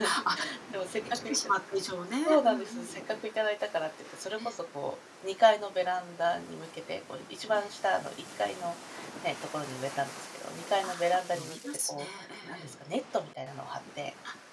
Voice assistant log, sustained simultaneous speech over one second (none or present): present